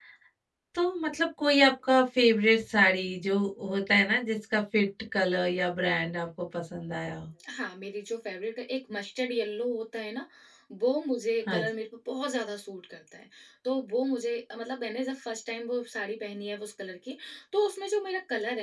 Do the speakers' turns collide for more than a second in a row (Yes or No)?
No